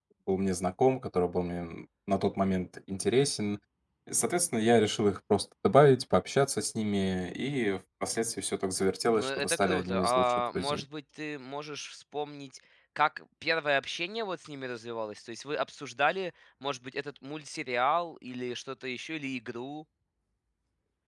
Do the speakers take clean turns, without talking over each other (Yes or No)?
No